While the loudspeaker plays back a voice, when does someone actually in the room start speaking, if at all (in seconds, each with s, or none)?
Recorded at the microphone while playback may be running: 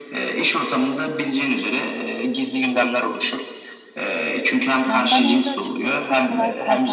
4.8 s